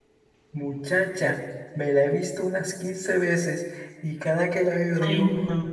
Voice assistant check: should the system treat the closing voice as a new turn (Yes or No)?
No